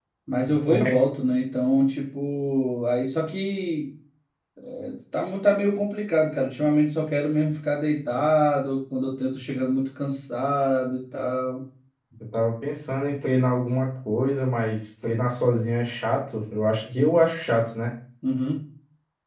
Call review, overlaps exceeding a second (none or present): none